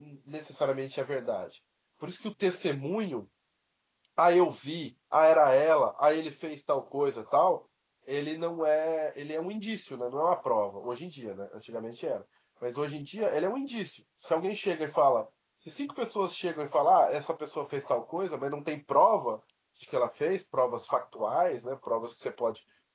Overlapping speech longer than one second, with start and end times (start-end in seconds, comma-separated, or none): none